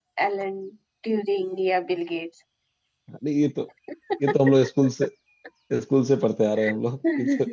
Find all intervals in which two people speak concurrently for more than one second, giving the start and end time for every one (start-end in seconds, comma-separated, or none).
none